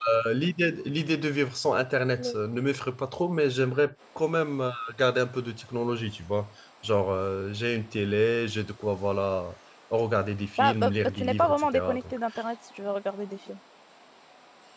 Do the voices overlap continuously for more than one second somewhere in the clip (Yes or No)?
Yes